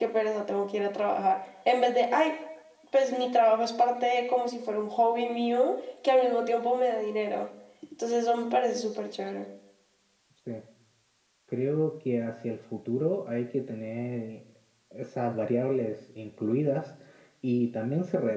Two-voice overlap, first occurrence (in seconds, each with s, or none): none